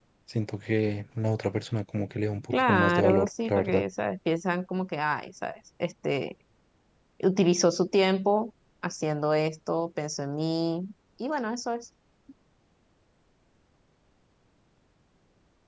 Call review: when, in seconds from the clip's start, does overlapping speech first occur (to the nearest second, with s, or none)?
3 s